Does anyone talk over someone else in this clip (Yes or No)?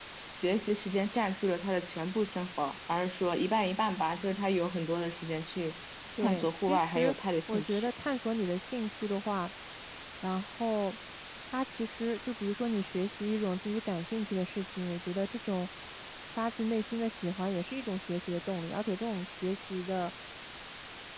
Yes